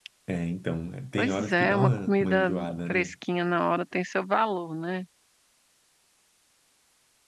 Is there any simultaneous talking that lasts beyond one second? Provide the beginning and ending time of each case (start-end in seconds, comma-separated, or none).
1.2-2.5